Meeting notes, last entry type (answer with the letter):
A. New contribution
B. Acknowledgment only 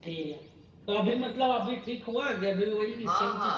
A